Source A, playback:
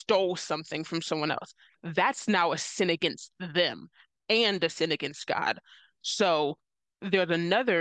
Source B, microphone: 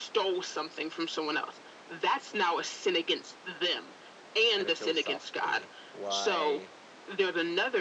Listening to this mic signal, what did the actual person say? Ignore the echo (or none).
kind of philosophically. Why